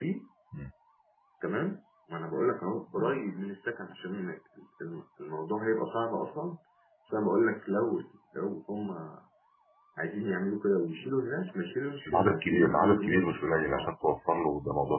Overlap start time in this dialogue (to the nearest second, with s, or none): 12 s